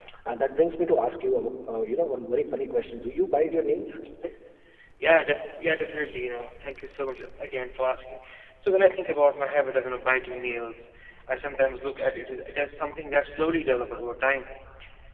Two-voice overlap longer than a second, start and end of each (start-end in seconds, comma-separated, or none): none